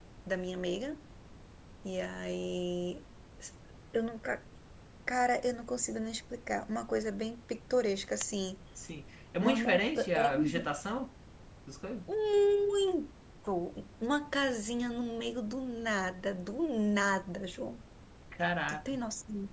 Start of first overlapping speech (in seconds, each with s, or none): 9.4 s